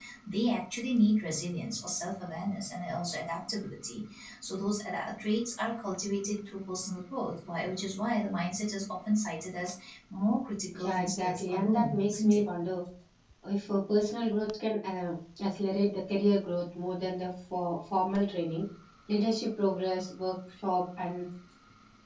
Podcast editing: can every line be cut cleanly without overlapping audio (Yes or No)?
No